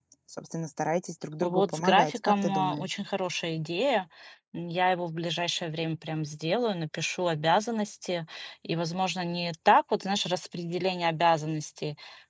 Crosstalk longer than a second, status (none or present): present